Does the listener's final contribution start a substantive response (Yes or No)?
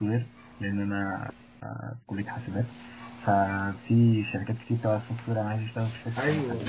Yes